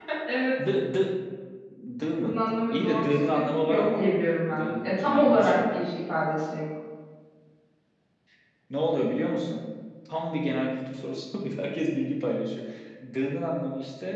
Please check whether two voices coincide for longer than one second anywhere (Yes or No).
Yes